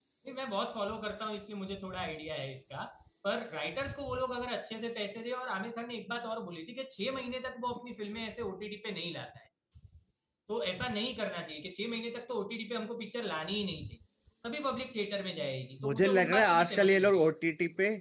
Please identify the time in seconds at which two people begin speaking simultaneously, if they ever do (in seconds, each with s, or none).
15.8 s